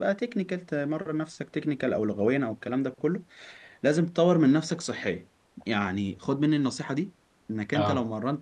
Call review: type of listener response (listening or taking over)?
listening